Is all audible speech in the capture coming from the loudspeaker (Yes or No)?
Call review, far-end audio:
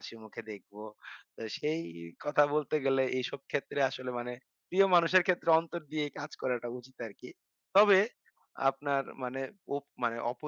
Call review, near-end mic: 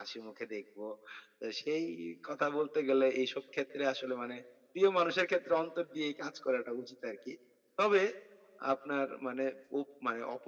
Yes